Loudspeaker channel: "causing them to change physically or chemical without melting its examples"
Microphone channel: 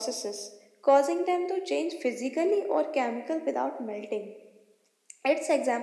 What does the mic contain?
echo only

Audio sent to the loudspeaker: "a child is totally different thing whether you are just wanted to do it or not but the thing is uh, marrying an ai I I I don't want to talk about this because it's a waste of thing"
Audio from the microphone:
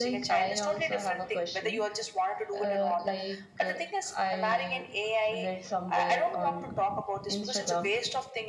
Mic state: both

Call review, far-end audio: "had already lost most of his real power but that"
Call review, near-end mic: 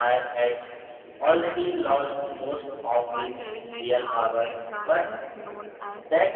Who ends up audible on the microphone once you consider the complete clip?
both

